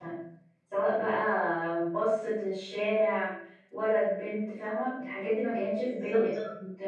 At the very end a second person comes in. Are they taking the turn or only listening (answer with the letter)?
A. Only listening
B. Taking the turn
A